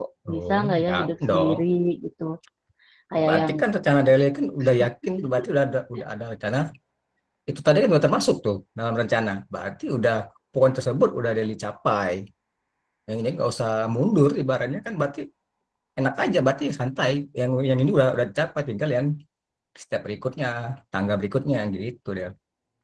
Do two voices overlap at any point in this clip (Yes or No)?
Yes